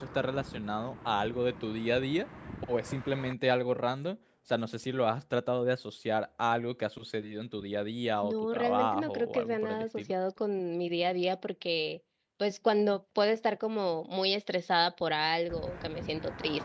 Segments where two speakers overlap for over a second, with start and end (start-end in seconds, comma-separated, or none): 8.2-10.1